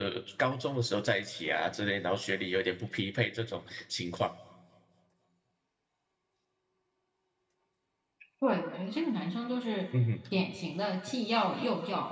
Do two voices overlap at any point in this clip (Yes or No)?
No